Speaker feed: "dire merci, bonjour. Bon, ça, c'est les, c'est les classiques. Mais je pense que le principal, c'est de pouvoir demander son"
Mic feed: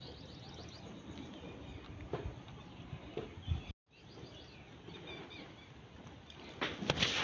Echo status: none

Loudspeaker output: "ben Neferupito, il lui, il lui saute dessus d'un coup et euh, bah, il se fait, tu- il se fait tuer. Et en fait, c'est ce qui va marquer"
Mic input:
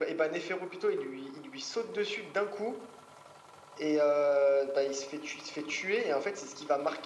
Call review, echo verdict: present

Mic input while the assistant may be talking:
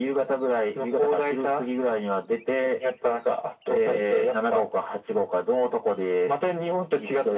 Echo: present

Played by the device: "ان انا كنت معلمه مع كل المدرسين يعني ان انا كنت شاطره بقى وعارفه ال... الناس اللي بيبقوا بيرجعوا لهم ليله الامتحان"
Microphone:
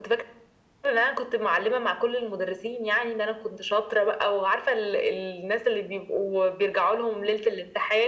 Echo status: present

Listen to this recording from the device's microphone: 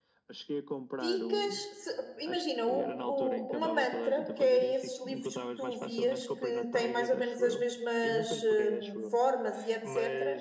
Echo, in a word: present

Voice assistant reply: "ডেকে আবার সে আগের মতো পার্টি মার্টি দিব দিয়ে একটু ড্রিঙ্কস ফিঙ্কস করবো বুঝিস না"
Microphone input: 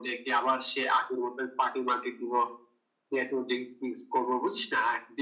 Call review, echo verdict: present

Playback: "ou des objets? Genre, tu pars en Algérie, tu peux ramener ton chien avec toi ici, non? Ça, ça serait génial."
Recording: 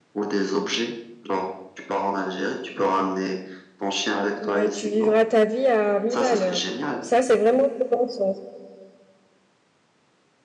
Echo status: present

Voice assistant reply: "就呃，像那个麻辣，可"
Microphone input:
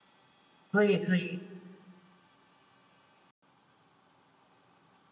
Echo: none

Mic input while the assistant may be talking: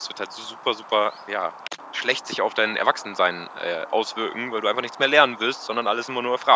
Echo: none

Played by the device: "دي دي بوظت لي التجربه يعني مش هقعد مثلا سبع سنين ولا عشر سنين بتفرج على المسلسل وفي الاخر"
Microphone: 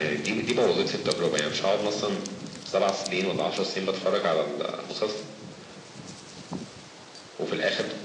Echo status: present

